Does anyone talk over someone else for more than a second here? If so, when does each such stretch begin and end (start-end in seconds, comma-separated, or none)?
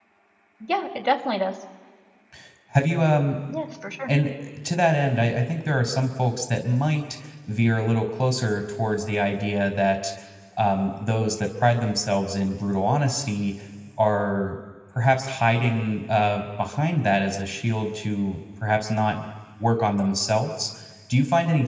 none